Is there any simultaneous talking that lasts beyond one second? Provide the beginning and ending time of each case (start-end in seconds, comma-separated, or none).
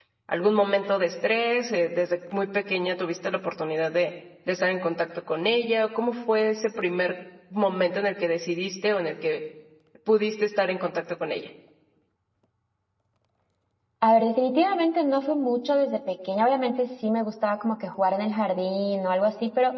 none